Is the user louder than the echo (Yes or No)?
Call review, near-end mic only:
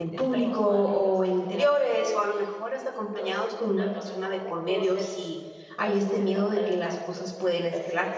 Yes